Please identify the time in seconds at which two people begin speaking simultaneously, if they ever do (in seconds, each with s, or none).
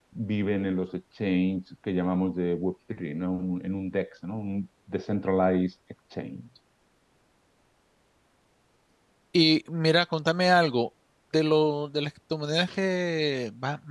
none